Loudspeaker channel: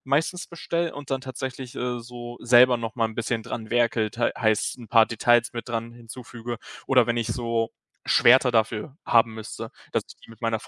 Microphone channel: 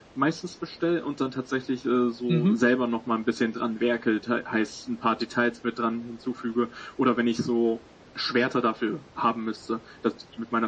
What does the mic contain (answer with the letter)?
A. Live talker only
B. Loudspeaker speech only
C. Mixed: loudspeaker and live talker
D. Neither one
C